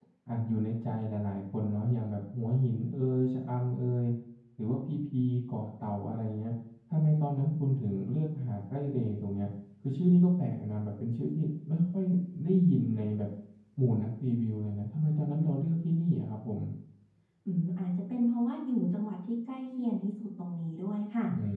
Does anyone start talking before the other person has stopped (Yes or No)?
No